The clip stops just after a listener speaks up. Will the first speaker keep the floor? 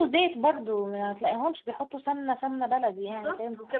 No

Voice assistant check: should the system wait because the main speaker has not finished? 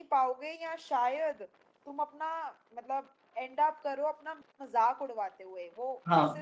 No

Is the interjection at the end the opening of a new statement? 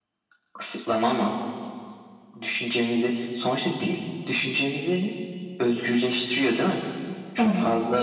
No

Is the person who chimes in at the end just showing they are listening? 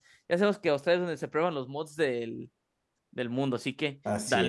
No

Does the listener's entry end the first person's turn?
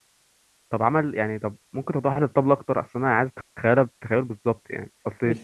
No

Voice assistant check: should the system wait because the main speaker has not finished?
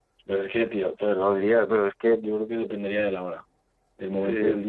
Yes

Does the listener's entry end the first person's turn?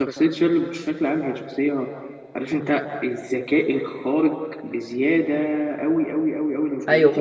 Yes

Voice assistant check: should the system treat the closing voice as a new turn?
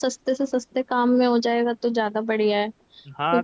Yes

